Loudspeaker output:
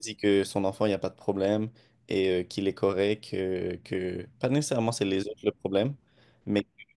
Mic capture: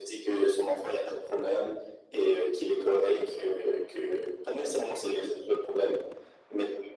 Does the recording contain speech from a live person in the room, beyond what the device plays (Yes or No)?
No